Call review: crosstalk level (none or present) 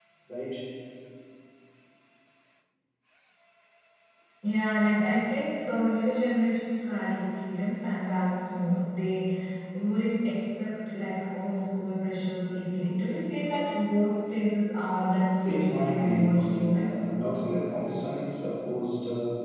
present